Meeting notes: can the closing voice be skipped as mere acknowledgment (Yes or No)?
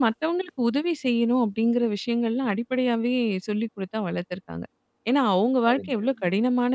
Yes